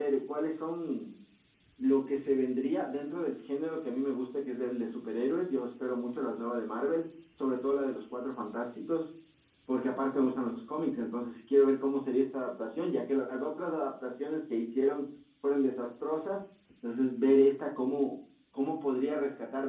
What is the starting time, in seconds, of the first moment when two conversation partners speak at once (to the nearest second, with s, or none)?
none